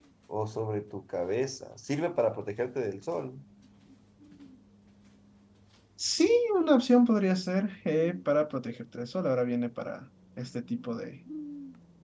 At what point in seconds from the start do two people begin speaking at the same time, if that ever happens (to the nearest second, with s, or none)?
none